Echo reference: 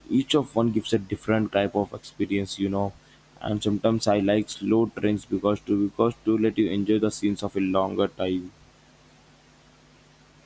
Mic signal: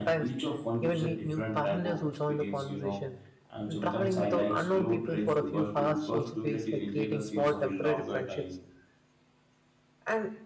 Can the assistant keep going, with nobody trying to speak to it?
No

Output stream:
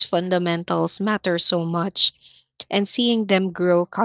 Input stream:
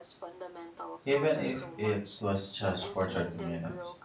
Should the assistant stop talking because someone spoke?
Yes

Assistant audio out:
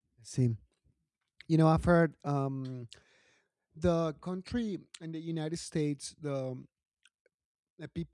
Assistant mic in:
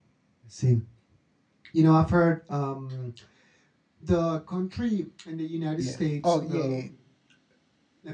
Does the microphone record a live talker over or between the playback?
Yes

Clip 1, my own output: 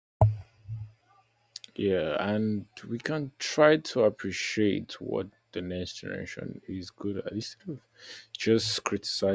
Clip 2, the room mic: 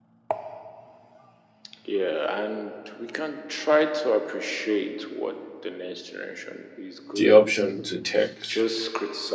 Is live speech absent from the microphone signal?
No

